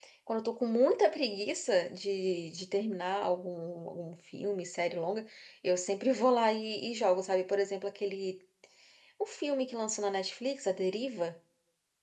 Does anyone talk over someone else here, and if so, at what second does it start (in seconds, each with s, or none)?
none